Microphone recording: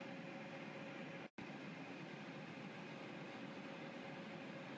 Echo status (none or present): none